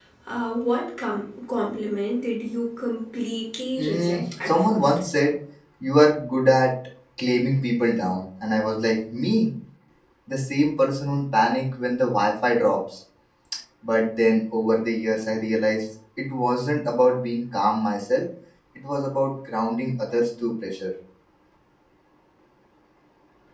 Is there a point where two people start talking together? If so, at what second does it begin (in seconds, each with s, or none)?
3.8 s